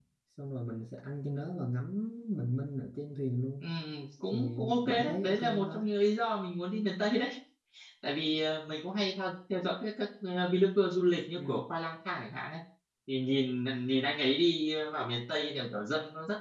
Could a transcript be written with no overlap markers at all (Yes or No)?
No